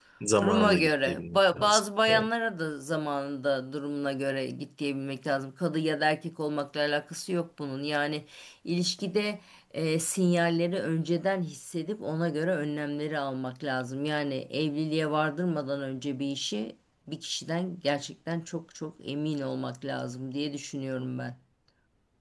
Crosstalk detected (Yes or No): Yes